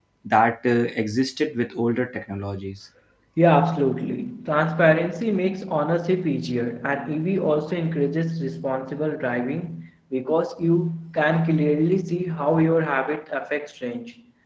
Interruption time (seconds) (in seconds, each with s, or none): none